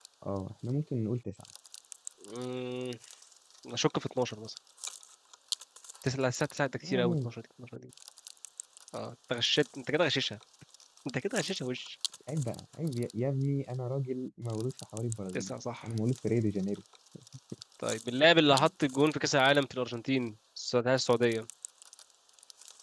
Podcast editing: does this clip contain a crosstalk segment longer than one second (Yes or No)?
No